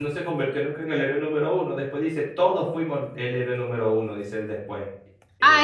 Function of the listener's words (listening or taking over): taking over